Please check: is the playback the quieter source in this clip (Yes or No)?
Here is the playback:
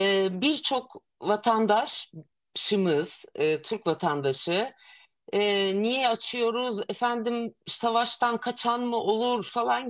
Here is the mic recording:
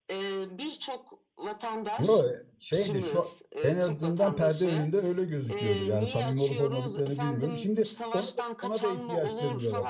Yes